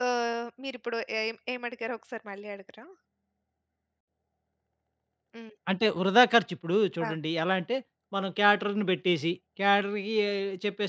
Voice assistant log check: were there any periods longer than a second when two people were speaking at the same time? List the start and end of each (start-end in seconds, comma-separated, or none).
none